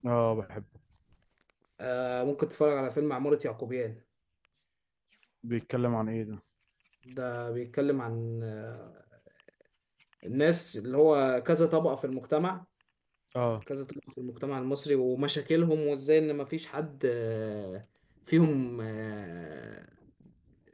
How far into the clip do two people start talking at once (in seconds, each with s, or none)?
none